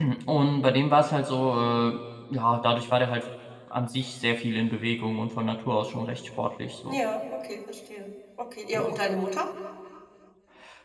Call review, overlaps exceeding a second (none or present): none